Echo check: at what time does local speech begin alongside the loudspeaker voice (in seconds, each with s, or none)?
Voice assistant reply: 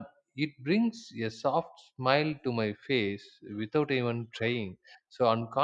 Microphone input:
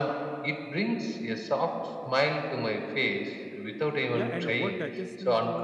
4.1 s